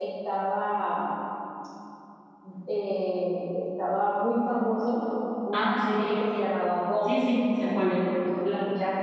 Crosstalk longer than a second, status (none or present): none